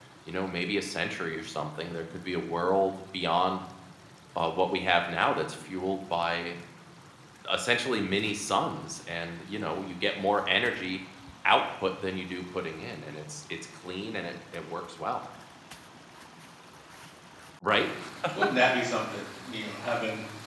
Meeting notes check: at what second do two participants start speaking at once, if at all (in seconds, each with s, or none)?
none